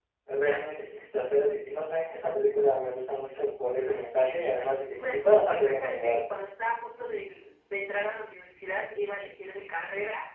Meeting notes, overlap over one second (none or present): present